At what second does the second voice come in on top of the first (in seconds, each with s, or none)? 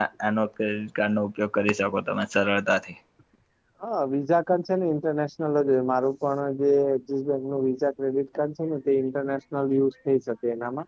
none